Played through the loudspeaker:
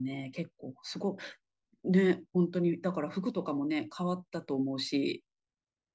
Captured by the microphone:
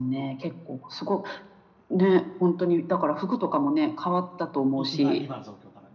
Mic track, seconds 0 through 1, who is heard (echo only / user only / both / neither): echo only